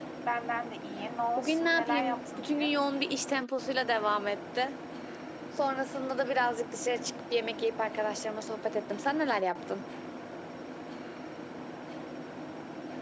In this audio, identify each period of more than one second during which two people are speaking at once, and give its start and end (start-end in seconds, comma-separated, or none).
1.4-2.8